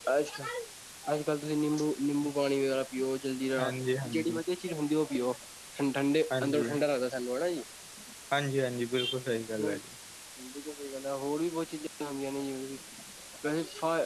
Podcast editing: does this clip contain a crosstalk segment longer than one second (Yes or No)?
No